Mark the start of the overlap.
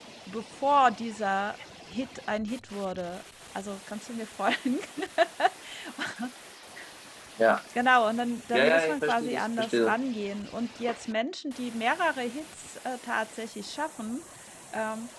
8.5 s

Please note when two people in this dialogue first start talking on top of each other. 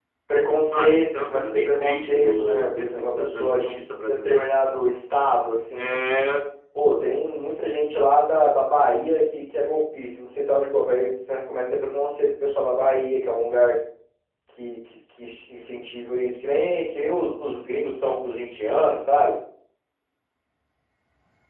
0.6 s

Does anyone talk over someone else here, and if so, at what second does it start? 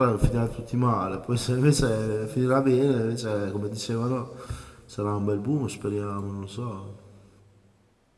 none

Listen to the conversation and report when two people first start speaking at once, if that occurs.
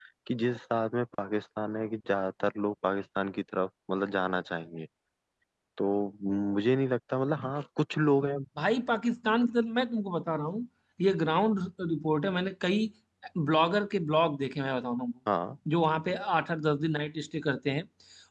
none

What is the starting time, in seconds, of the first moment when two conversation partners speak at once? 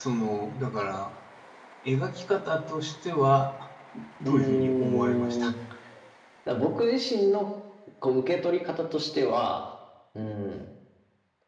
4.2 s

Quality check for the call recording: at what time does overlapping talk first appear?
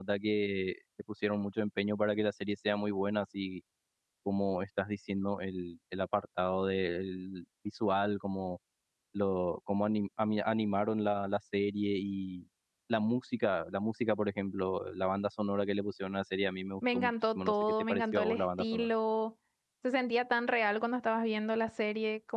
16.8 s

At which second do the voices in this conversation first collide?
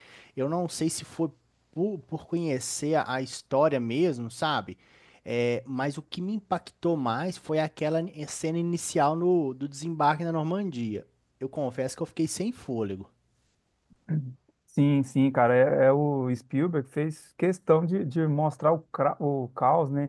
none

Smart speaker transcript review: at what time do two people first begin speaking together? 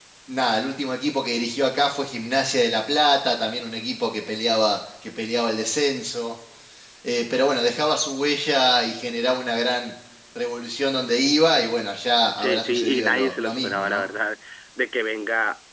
12.4 s

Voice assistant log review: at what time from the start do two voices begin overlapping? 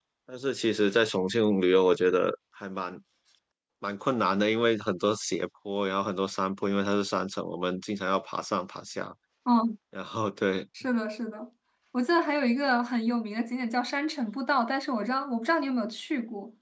none

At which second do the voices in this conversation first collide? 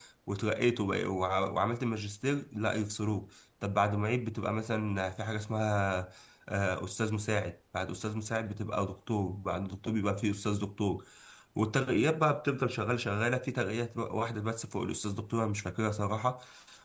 none

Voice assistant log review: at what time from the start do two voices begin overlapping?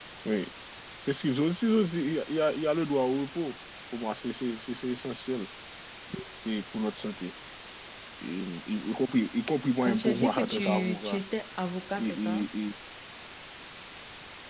9.9 s

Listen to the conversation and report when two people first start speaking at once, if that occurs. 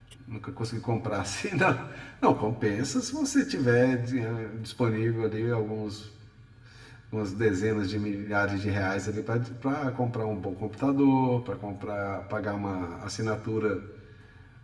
none

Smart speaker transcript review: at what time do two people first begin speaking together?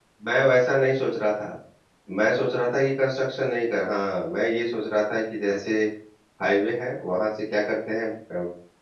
none

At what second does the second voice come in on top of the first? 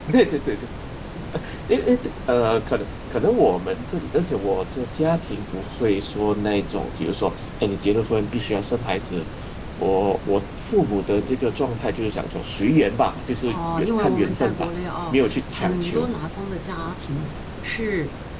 13.5 s

